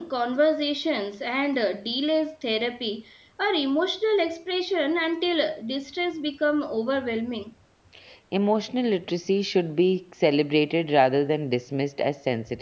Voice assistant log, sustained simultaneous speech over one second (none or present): none